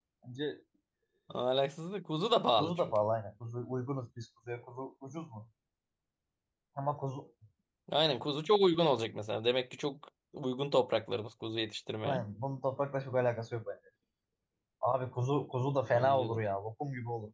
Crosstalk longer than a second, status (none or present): none